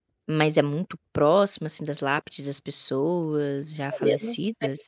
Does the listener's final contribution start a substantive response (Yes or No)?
Yes